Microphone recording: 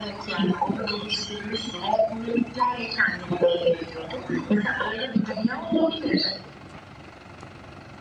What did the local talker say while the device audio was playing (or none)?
none